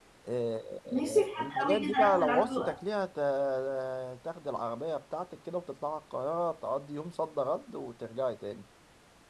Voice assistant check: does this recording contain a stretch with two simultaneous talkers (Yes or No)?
Yes